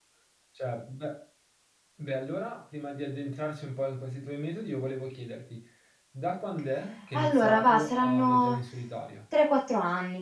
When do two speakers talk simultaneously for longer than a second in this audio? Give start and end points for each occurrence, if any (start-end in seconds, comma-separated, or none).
7.1-8.6